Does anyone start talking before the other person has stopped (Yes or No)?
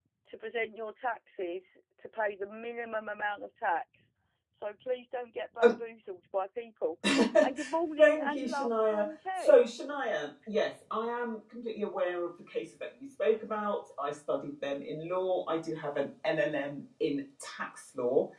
Yes